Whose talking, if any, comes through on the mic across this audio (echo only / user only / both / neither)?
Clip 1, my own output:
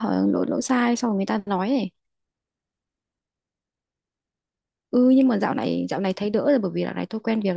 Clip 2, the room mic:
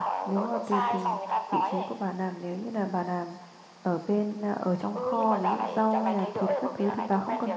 both